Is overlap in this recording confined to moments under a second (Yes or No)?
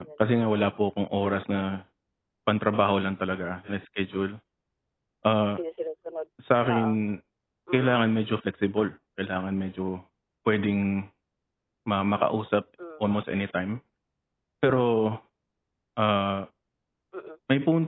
Yes